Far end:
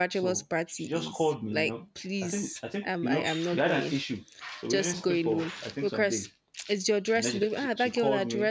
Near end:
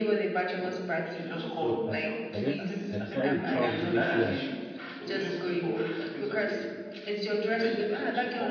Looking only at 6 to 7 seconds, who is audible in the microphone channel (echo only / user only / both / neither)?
echo only